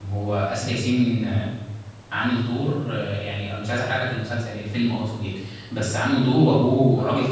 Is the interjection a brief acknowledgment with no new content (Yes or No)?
Yes